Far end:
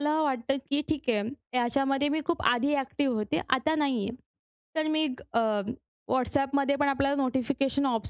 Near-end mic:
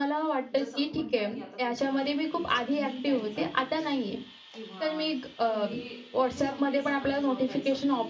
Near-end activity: present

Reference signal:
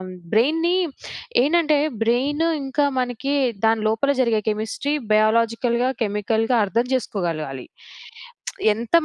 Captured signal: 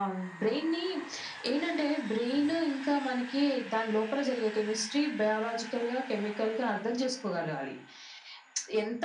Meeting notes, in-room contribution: none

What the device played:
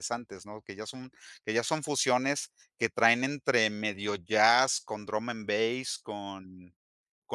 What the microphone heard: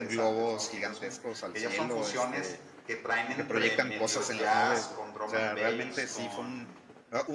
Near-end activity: present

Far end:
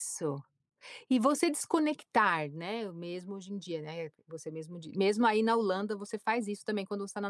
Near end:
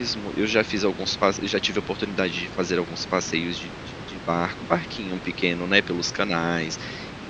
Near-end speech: present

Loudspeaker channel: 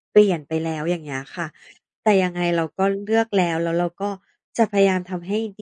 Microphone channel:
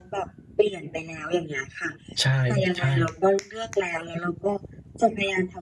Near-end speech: present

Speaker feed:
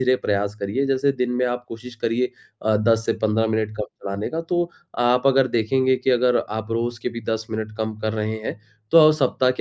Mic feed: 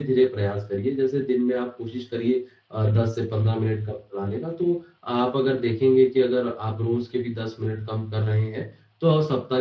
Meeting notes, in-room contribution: none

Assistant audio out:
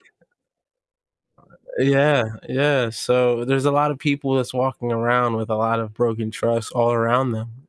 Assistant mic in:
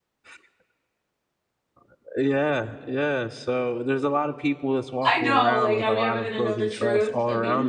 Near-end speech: present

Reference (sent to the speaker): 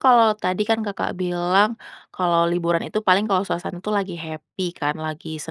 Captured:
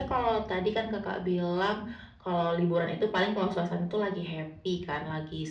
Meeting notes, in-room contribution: none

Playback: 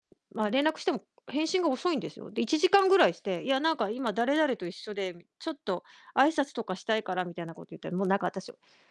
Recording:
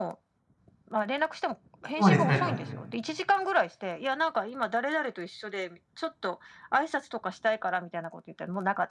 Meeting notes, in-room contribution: present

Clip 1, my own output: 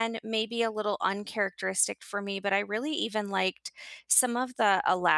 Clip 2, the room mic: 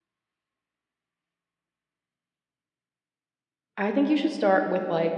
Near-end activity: present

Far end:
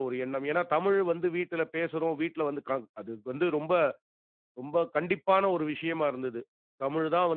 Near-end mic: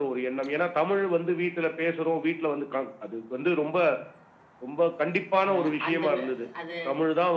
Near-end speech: present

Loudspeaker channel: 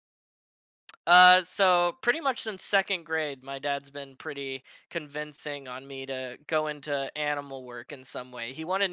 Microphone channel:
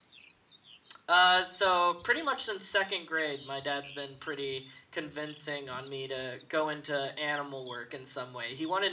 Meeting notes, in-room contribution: none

